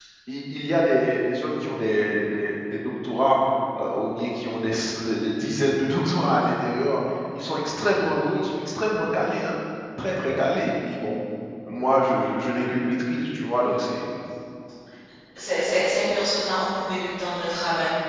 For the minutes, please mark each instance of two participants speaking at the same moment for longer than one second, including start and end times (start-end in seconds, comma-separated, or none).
none